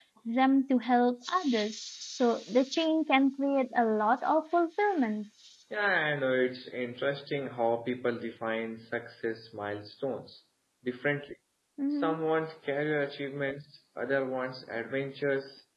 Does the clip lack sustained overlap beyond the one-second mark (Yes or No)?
Yes